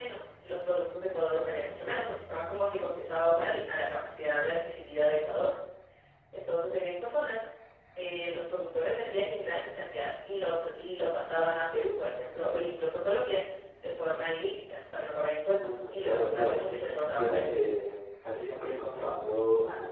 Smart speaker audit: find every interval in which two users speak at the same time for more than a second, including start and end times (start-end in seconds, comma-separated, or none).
15.5-17.4